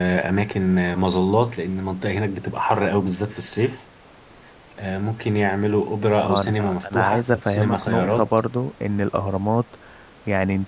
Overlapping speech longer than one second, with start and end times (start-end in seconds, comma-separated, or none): 6.2-8.3